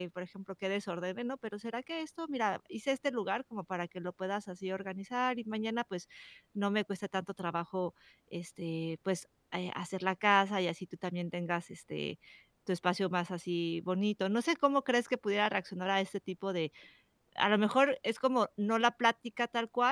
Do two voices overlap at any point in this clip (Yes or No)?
No